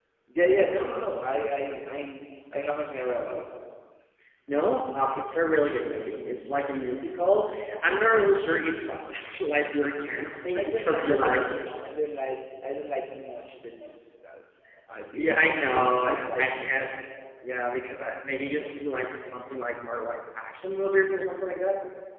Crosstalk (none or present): present